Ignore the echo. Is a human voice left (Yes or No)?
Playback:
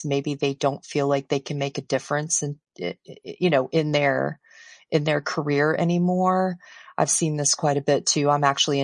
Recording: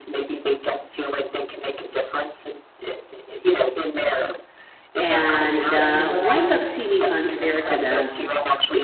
Yes